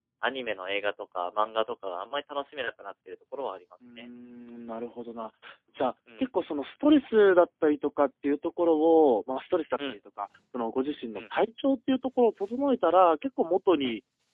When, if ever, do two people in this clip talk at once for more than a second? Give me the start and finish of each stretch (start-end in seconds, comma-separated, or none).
none